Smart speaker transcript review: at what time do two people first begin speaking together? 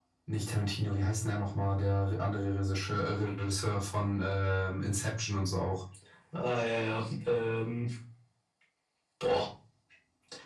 none

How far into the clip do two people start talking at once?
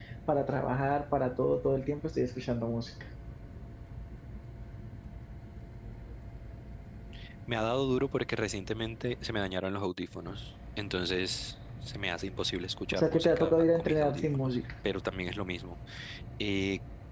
13 s

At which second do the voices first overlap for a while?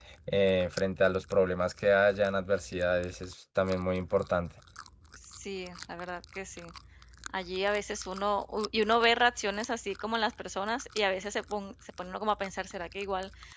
none

